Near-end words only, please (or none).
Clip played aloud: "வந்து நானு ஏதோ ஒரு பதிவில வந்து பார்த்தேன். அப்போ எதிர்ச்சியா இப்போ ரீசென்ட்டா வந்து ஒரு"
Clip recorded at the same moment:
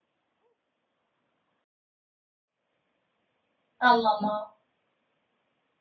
ஆமாமா.